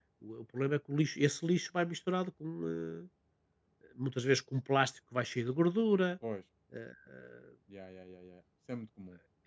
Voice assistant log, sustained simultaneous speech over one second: none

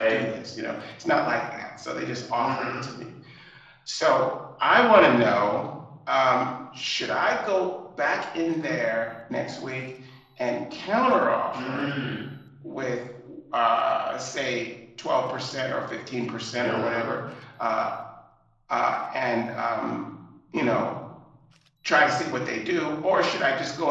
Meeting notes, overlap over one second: none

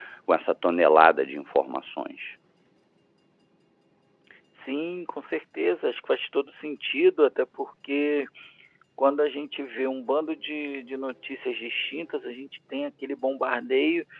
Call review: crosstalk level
none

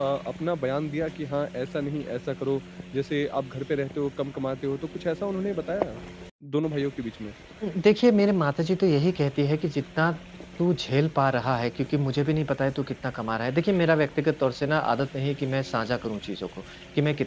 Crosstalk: none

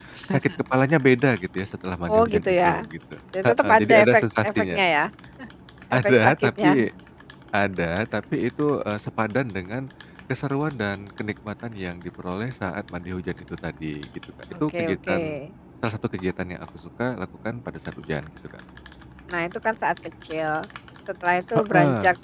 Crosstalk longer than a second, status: present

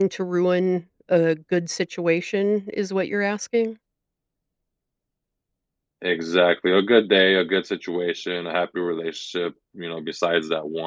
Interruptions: none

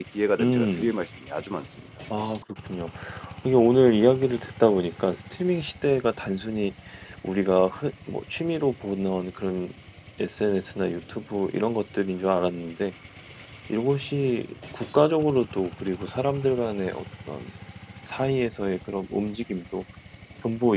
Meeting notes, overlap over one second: none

